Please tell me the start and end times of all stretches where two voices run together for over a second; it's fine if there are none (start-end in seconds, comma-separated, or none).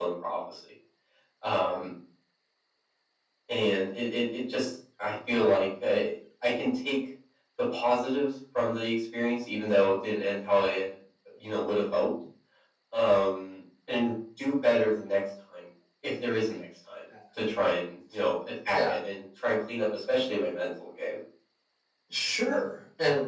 none